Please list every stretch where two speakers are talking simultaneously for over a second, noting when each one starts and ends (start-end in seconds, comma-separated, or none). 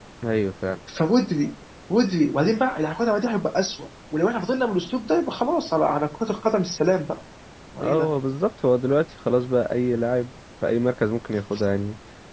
none